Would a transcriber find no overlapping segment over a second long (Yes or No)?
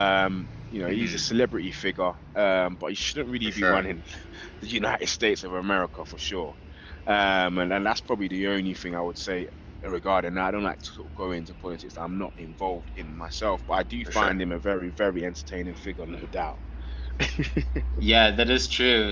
Yes